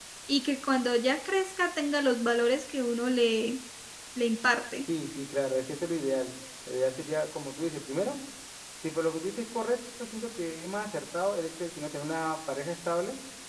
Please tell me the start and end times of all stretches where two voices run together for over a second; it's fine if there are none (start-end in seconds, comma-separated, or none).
none